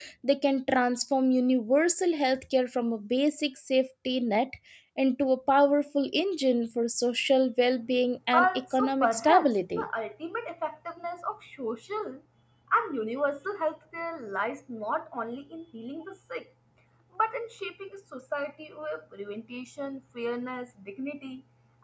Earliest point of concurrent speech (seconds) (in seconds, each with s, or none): 8.3 s